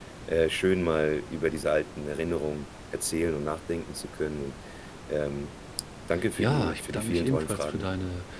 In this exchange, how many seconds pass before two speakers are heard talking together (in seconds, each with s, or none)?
6.3 s